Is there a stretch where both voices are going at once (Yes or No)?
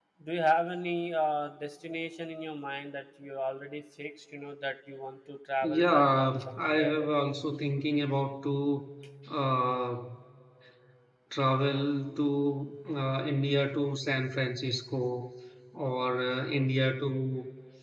Yes